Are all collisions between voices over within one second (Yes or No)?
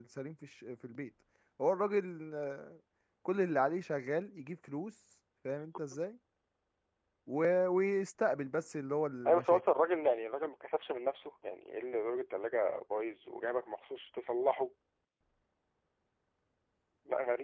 Yes